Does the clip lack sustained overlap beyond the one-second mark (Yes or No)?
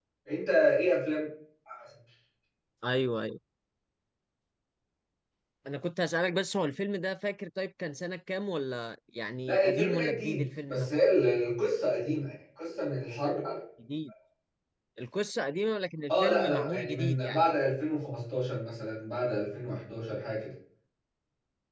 No